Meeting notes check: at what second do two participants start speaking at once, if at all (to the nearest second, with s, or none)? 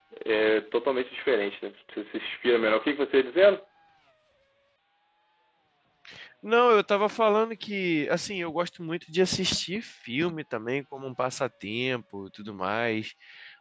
none